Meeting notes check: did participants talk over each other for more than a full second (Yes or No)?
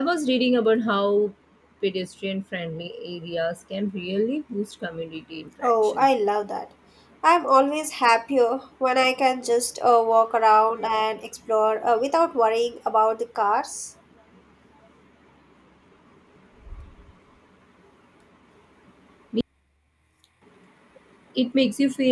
No